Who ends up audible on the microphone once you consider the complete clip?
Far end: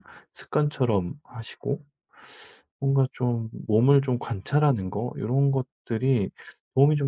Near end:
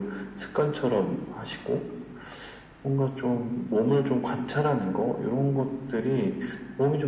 echo only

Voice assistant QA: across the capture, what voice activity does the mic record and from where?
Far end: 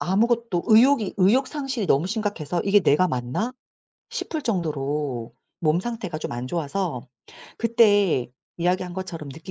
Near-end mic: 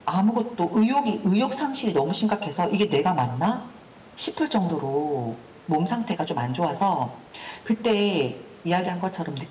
echo only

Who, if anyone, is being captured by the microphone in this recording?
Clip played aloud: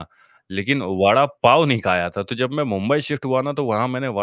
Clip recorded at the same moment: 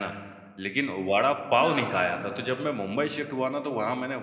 both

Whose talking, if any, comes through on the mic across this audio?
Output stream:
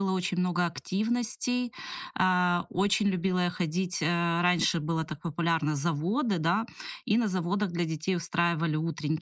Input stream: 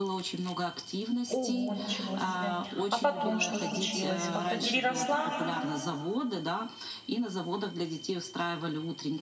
both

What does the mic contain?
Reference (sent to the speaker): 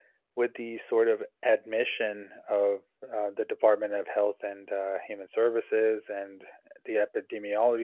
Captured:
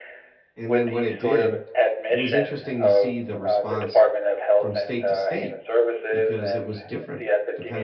both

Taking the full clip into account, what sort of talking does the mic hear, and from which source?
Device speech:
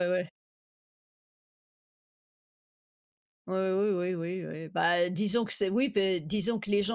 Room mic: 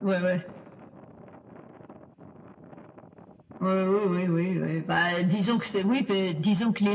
echo only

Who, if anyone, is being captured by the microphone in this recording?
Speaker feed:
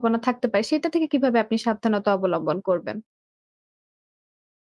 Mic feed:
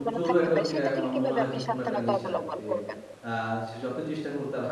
both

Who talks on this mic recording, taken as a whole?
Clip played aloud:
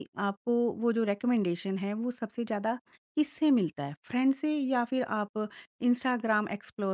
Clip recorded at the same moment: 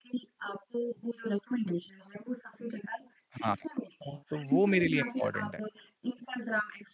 both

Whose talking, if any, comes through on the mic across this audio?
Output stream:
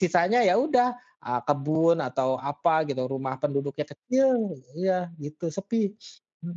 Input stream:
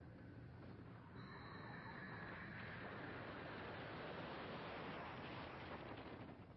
neither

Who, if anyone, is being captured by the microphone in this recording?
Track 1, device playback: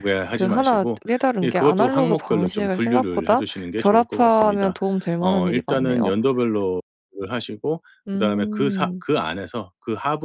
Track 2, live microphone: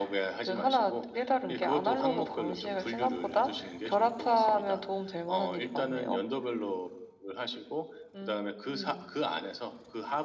echo only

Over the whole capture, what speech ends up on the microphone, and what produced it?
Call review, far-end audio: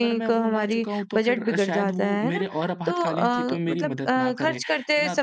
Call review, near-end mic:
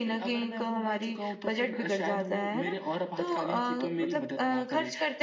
echo only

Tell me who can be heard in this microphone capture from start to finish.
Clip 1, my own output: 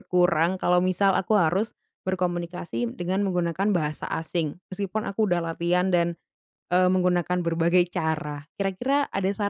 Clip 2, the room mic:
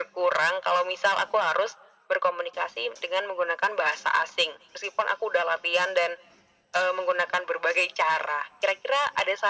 echo only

